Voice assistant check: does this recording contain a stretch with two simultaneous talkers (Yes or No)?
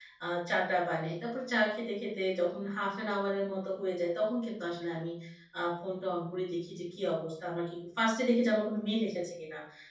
No